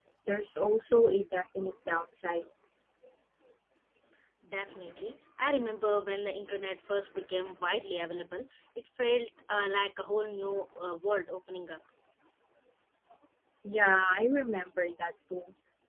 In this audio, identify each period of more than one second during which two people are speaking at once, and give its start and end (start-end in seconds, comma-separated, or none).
none